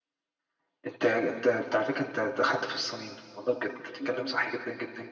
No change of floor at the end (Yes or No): Yes